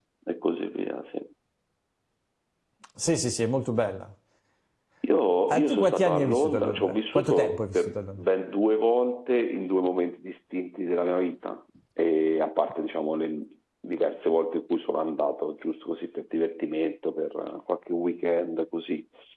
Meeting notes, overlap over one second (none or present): present